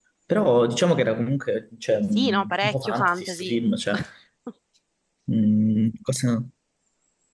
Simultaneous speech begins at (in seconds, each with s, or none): 2.1 s